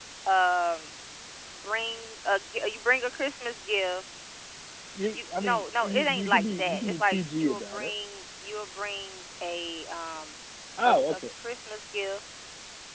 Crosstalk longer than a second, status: present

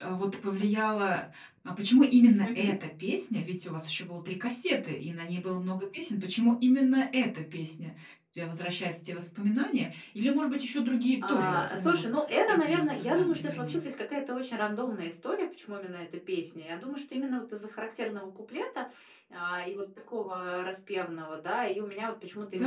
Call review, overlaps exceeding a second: present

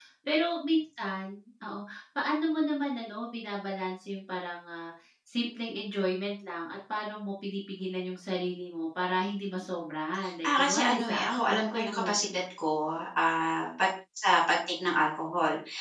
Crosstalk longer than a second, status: present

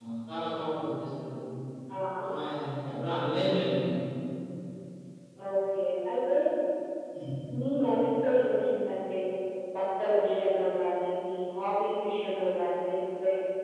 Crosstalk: none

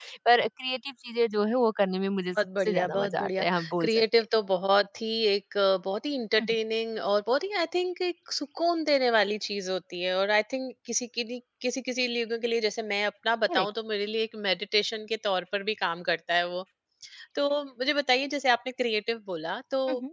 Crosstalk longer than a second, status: present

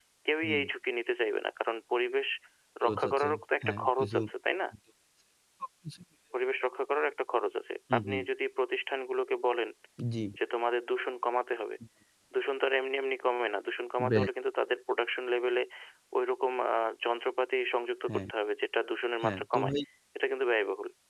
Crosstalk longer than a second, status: present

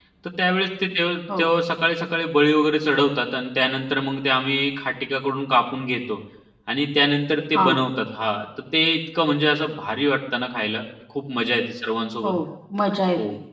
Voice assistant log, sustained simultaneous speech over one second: none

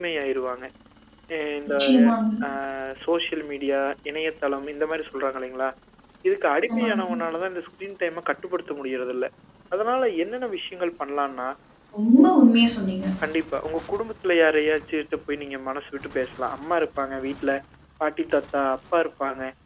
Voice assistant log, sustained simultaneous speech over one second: none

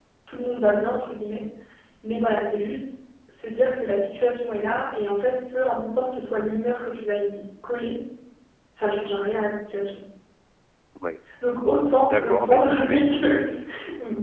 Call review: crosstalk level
present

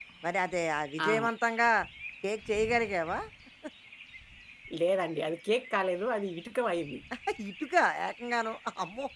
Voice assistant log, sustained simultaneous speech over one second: none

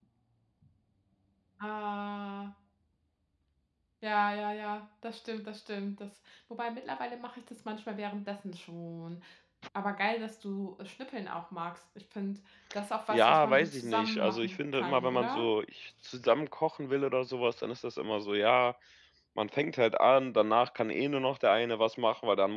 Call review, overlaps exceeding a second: present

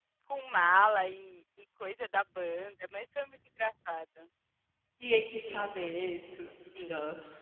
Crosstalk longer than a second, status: none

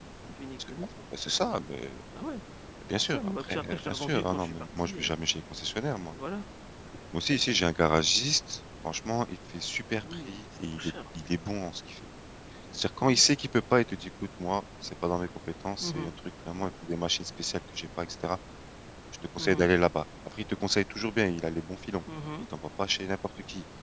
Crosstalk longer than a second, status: present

